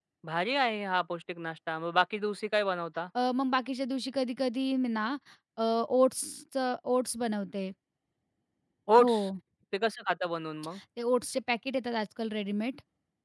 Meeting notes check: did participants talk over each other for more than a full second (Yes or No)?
No